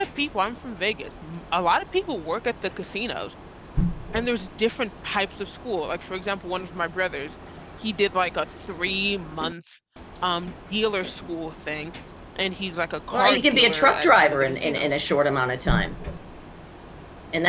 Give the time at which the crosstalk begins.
13.1 s

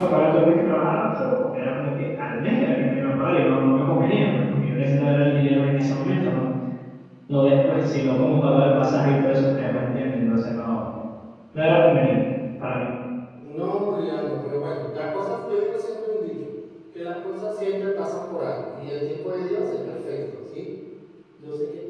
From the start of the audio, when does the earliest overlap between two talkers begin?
none

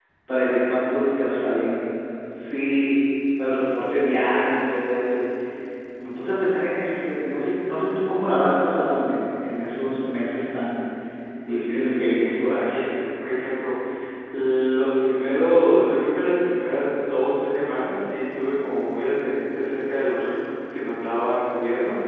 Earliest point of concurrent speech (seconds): 11.5 s

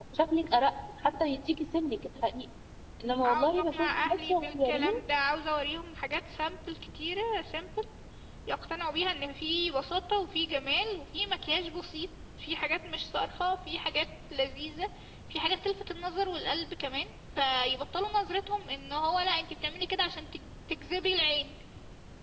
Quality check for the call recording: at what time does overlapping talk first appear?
3.2 s

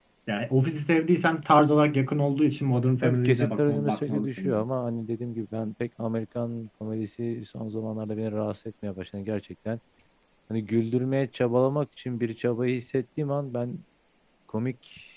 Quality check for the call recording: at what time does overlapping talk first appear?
3.0 s

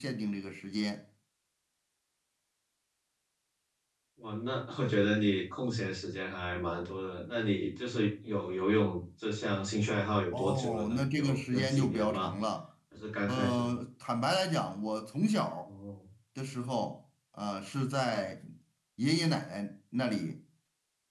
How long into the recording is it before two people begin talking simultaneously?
10.3 s

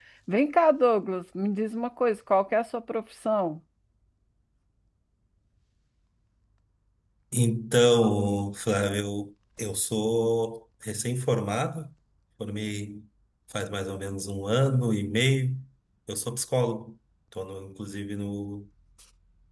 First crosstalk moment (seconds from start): none

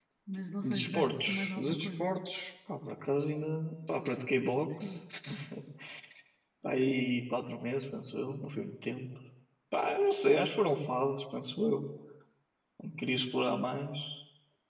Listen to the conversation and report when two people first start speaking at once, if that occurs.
0.6 s

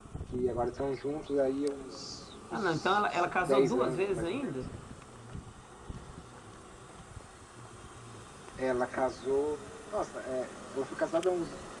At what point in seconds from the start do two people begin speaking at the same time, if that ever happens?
2.5 s

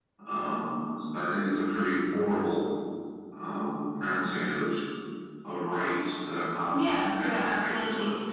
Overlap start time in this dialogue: 6.6 s

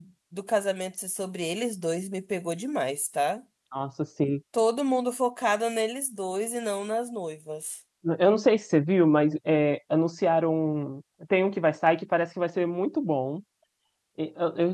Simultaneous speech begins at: none

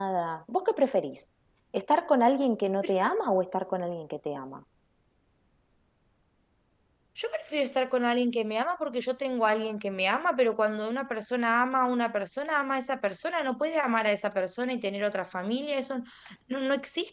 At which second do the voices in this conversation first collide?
none

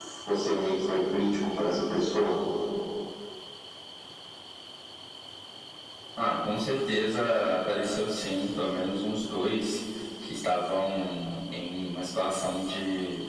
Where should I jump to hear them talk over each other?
none

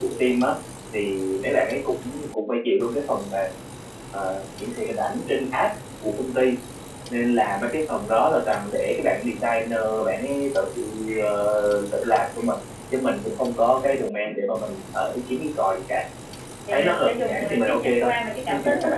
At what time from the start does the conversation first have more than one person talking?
16.7 s

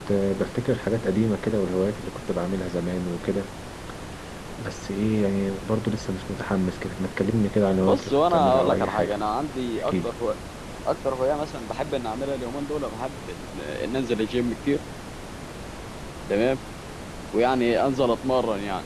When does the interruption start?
7.8 s

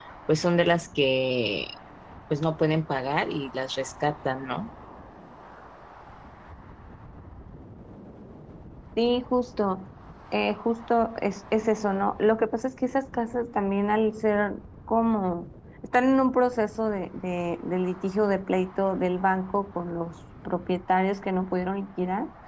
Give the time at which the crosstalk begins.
none

